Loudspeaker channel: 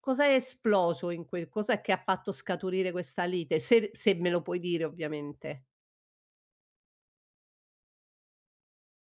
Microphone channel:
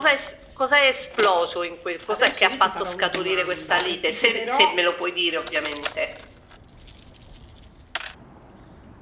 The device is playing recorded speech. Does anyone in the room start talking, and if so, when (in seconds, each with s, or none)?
2.1 s